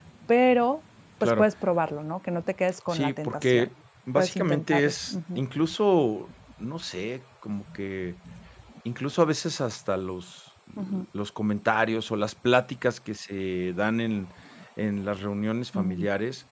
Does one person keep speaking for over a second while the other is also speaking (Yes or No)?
Yes